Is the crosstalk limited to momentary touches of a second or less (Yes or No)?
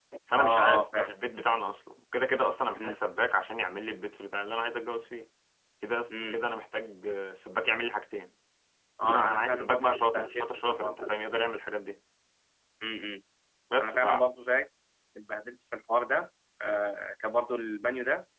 No